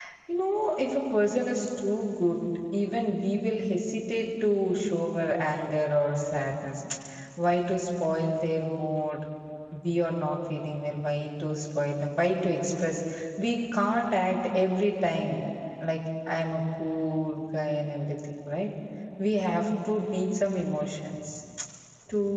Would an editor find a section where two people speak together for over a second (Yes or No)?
No